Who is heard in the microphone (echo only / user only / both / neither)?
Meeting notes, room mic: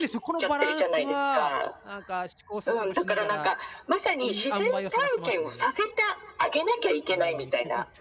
both